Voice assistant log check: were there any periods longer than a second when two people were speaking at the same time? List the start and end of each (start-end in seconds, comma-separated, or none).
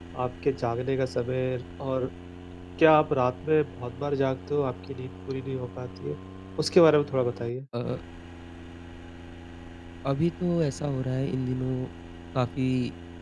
none